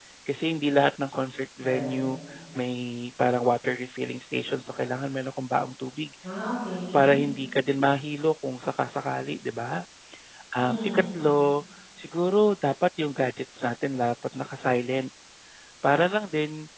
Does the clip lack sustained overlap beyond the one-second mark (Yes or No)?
Yes